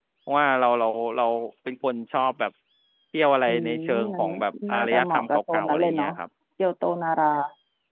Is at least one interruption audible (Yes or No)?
Yes